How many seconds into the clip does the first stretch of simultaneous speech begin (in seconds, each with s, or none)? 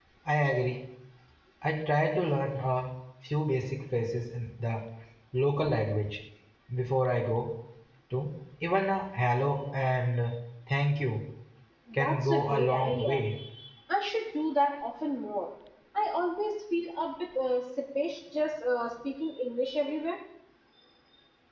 11.9 s